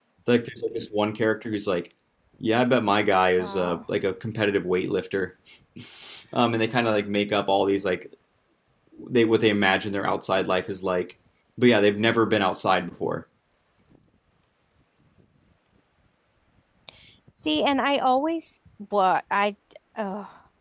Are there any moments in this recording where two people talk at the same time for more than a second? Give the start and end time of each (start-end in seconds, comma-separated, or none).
none